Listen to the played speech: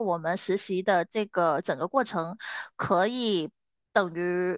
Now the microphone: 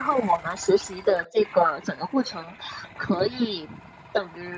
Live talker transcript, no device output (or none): none